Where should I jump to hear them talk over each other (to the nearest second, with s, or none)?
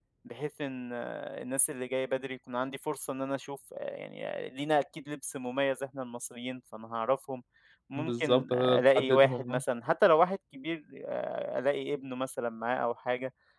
8 s